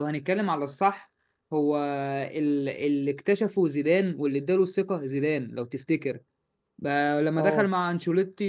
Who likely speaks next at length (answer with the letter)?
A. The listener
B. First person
B